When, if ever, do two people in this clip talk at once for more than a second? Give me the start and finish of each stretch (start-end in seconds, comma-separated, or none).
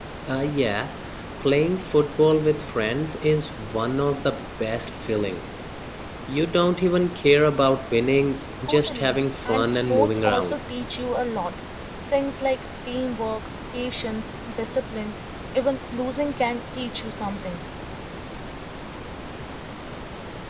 8.7-10.6